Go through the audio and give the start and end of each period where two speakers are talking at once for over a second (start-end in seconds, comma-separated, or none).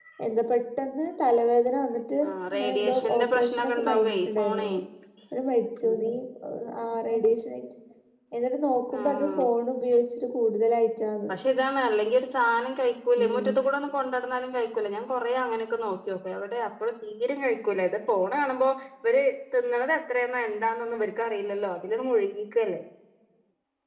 2.2-4.7